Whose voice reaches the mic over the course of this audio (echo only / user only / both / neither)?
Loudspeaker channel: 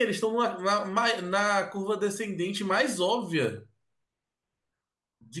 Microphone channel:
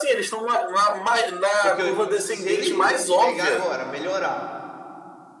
both